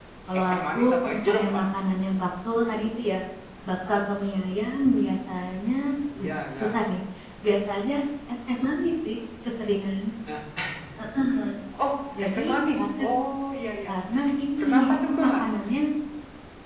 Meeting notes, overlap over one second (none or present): present